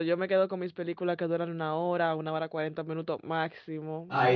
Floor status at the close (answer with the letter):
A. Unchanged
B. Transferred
B